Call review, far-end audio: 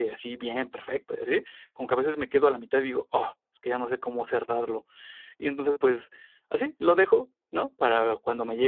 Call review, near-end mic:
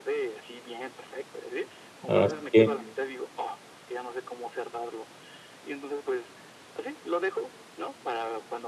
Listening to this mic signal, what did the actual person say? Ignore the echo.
Así que

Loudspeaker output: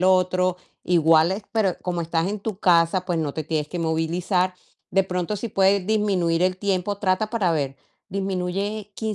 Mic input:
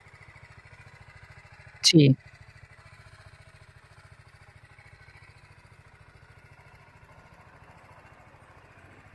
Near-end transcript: Sí.

